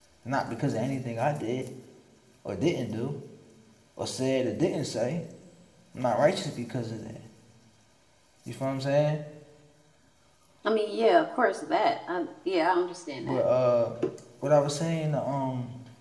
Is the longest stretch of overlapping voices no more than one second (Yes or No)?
Yes